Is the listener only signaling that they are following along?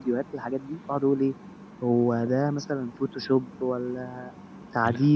Yes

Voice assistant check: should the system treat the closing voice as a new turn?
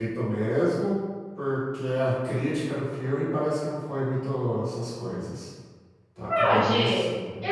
Yes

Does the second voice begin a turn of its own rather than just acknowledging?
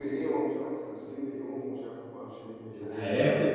Yes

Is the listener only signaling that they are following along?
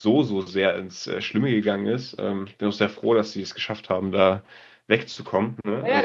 No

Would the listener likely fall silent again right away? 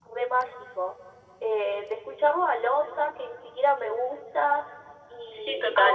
Yes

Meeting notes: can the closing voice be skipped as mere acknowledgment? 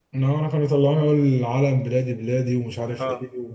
No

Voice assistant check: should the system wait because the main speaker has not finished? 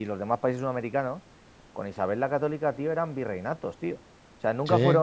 Yes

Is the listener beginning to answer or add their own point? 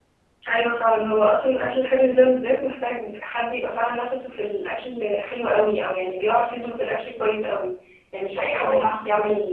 No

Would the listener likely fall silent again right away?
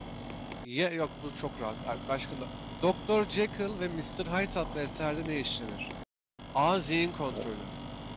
Yes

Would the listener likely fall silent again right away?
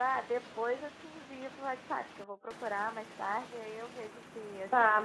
No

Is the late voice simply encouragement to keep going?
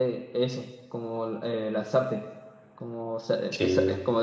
Yes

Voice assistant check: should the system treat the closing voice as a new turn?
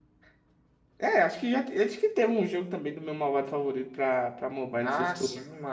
Yes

